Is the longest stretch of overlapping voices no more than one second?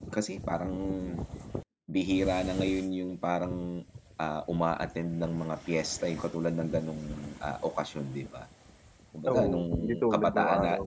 No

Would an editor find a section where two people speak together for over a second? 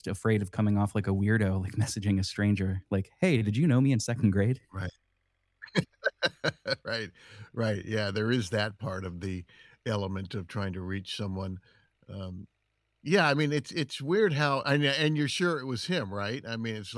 No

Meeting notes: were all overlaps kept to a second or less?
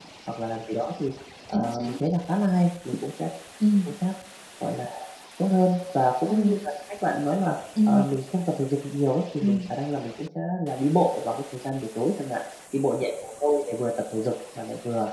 Yes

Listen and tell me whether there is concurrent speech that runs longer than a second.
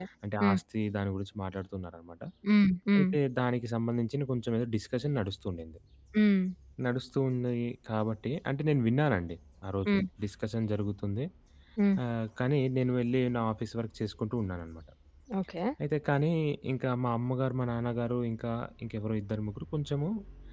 No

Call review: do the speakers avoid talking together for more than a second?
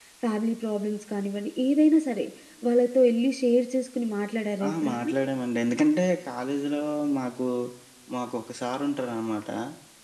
Yes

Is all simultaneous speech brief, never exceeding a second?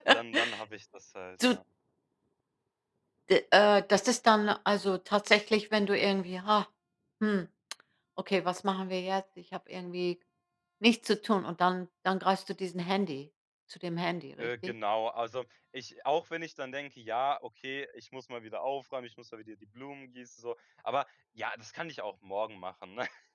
Yes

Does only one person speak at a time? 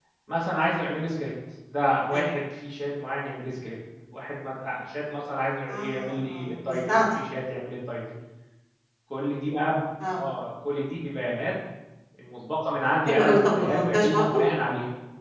No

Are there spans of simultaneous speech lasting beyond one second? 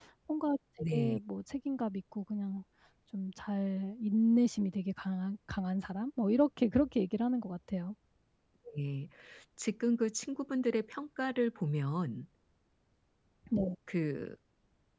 No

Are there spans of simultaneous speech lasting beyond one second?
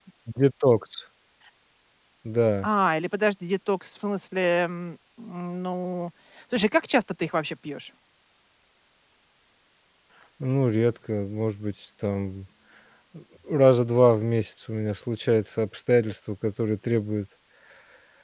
No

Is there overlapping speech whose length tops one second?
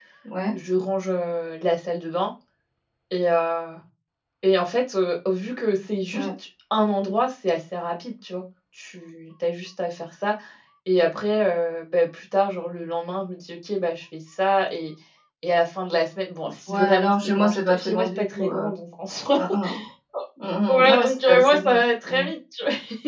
Yes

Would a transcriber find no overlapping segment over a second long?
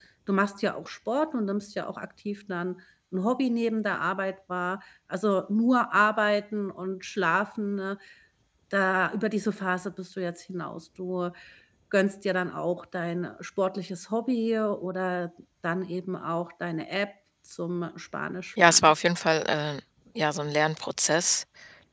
Yes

